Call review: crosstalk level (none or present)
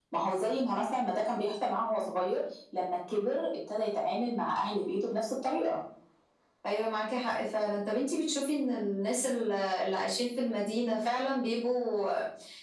none